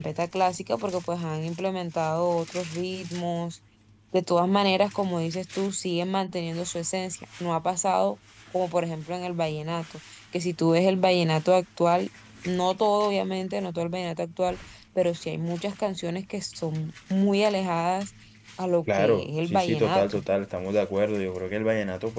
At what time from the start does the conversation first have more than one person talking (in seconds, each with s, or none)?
18.9 s